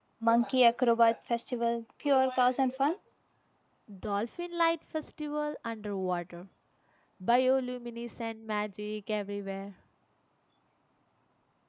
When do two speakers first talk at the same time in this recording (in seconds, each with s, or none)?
none